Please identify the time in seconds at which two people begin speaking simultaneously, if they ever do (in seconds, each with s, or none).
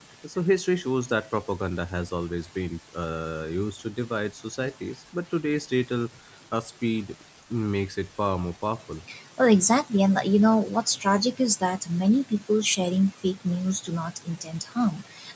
none